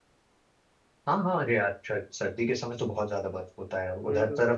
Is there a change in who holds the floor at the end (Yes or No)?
No